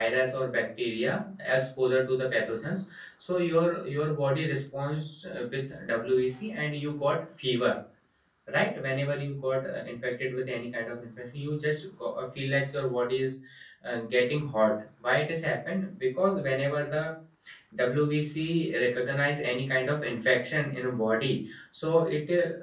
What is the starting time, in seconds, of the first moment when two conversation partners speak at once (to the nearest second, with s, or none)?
none